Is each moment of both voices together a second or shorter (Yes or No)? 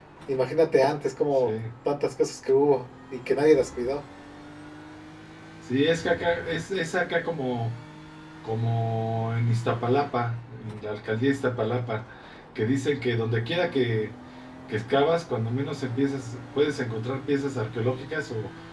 Yes